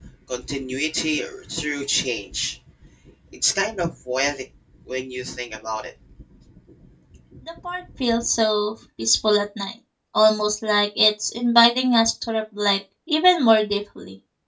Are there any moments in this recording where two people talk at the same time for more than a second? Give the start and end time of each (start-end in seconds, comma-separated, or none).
none